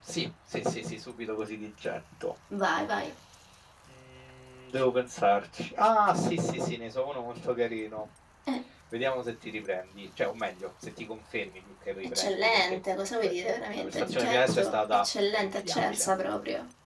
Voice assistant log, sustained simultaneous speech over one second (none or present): present